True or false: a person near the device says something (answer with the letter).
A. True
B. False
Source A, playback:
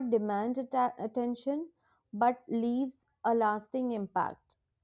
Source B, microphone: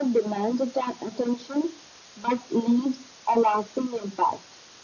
B